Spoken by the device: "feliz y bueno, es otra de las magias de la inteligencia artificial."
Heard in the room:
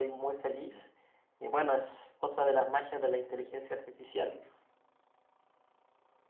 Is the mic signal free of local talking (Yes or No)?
Yes